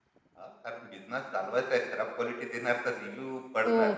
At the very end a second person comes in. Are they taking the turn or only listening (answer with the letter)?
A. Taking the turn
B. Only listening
A